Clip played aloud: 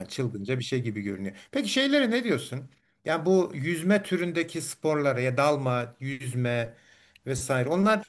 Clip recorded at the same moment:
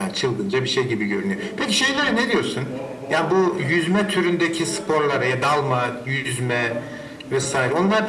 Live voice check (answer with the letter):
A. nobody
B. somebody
B